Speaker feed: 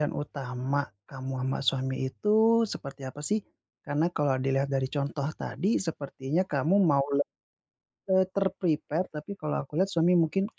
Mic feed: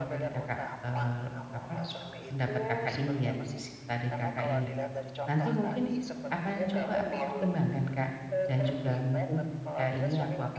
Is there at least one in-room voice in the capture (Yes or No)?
Yes